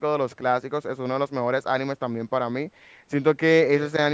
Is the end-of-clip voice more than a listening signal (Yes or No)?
No